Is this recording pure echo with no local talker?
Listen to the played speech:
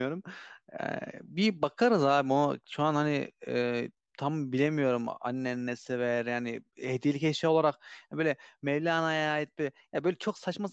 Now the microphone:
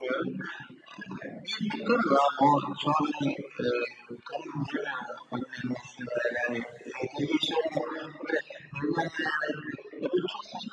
Yes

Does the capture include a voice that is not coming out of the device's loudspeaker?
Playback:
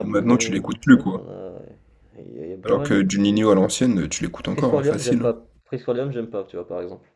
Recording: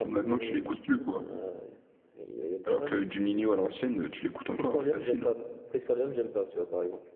No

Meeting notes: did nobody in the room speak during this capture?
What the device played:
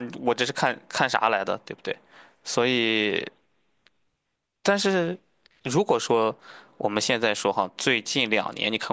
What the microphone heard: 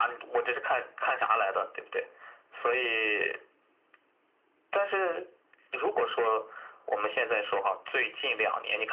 Yes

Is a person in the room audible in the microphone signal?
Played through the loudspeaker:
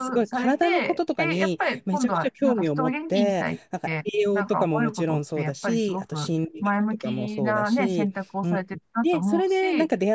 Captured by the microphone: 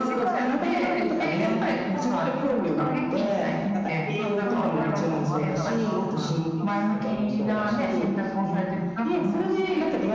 Yes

